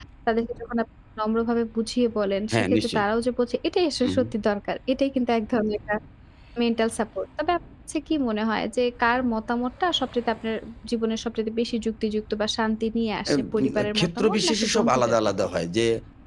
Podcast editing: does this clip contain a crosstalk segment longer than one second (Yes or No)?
Yes